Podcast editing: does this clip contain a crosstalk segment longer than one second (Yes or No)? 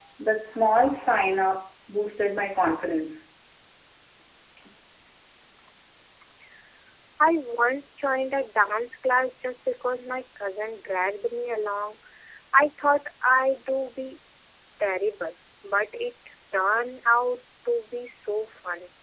No